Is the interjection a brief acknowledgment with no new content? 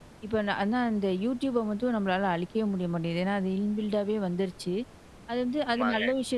Yes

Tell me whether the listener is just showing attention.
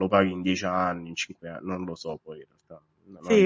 No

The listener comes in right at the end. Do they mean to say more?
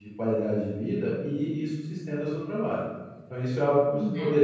No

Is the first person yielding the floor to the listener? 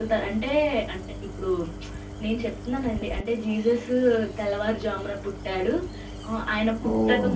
No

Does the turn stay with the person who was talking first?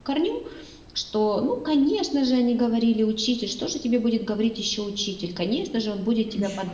Yes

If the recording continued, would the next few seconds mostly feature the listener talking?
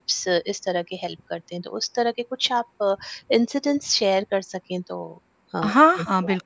Yes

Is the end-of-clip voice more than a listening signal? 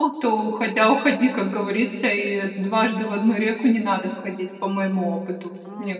Yes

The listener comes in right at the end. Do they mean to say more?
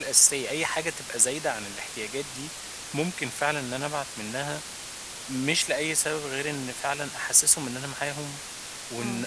No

